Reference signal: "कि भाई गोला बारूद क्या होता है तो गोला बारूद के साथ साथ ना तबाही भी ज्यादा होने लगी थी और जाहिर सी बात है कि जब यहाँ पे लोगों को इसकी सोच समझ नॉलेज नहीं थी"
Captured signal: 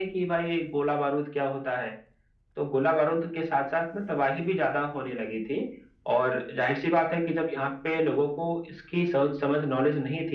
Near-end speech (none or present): none